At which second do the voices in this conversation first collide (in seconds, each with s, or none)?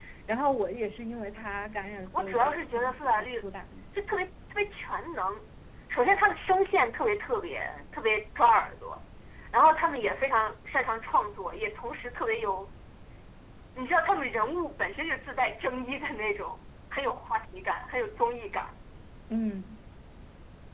2.1 s